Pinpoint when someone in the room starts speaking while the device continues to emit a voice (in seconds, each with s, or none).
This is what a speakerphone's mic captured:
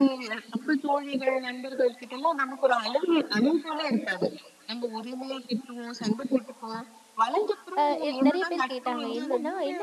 7.8 s